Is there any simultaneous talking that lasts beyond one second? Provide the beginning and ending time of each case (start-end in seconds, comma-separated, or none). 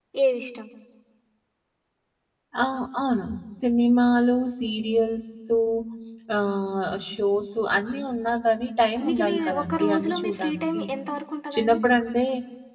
9.0-10.8